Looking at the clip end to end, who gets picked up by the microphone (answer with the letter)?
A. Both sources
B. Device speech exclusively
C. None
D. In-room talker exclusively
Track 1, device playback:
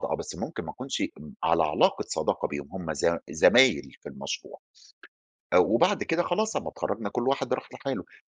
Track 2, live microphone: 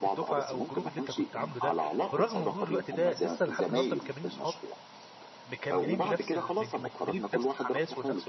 A